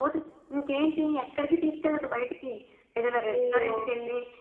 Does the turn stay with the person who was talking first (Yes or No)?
Yes